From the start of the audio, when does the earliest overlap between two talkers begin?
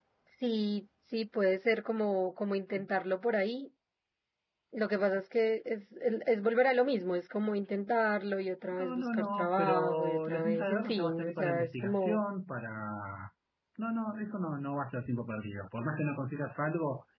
8.7 s

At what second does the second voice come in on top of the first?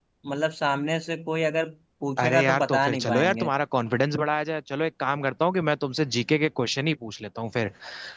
2.2 s

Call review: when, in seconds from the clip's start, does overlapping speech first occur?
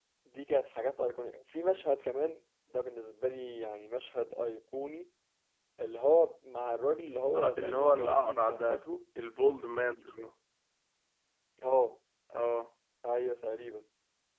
7.3 s

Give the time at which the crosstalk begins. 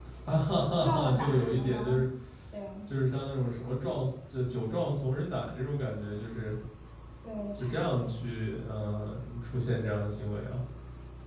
0.8 s

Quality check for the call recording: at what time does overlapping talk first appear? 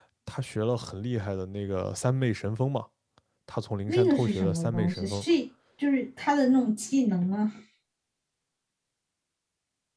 3.9 s

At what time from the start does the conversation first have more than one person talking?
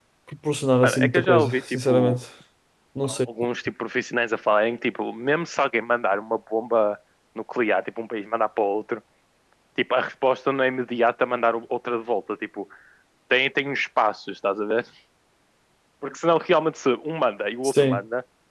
0.8 s

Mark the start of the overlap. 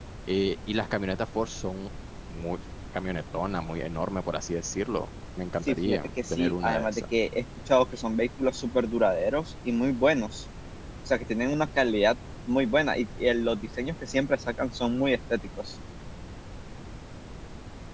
5.7 s

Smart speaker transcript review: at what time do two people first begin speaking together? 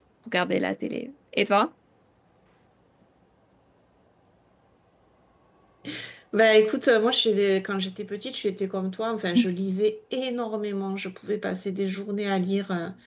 none

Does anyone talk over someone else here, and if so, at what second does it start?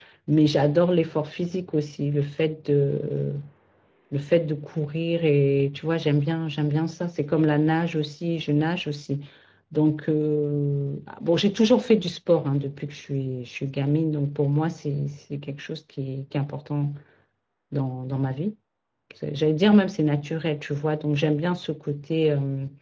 none

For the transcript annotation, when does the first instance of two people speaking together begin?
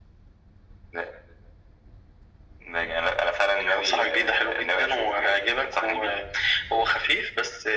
3.7 s

